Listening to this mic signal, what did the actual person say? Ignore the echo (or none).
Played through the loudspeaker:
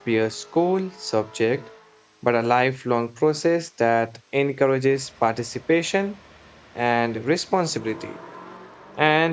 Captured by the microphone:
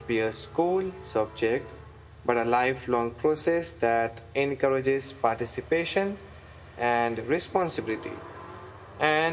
none